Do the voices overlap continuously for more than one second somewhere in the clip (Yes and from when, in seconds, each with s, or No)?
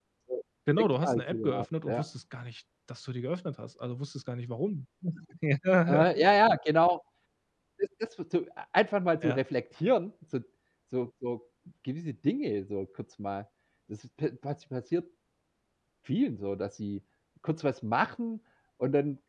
Yes, from 0.8 s